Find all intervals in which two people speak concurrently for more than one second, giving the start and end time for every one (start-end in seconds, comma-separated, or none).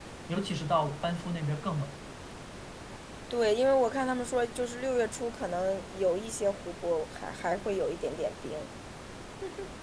none